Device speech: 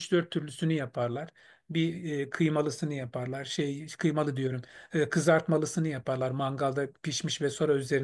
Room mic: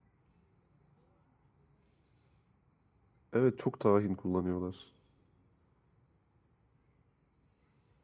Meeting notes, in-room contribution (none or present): present